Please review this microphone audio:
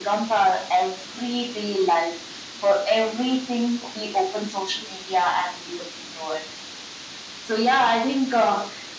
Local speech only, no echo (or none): none